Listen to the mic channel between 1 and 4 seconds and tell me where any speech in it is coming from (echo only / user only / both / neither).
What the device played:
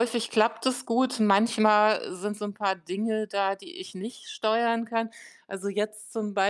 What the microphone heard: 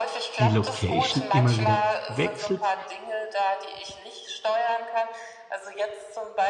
both